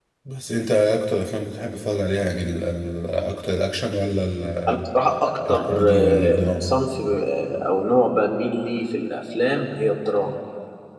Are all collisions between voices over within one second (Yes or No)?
No